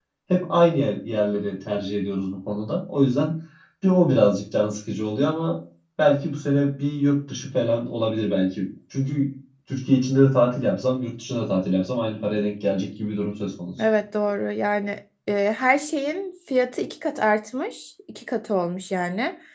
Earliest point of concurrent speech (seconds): none

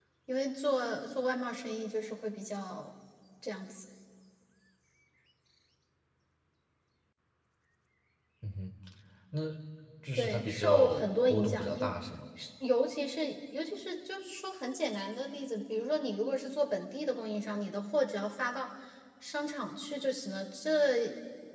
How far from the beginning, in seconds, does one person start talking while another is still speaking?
10.2 s

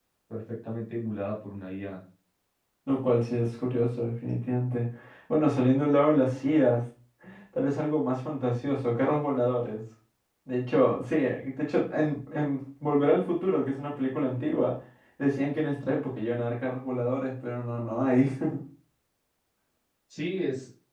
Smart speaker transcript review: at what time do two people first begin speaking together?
none

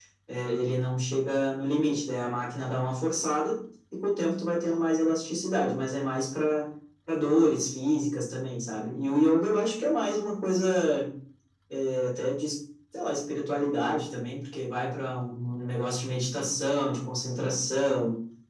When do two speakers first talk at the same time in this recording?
none

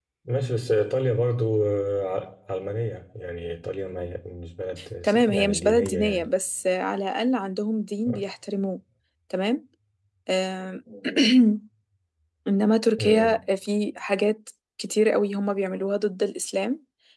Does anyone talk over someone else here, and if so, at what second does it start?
5.0 s

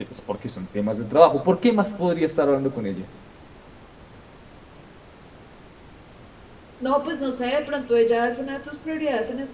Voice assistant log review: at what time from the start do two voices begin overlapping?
none

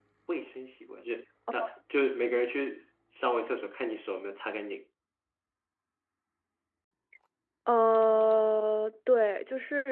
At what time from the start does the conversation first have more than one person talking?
none

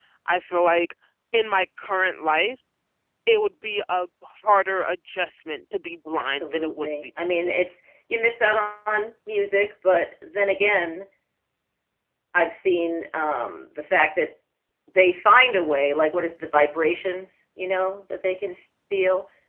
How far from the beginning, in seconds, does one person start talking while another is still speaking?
6.2 s

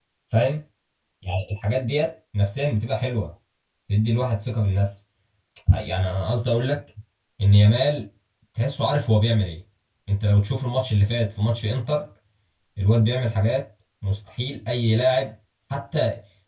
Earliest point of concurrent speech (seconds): none

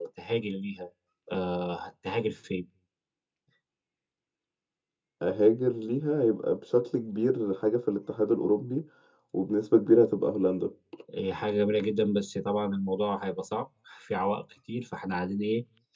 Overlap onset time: none

